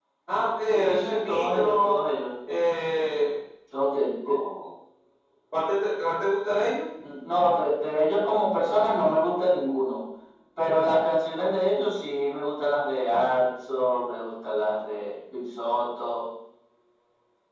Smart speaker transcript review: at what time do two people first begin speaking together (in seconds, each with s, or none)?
0.7 s